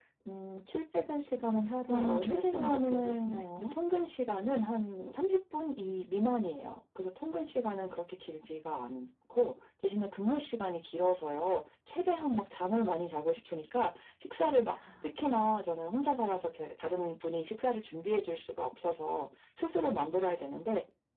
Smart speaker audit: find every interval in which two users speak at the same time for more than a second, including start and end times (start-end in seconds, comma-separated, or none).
1.9-3.7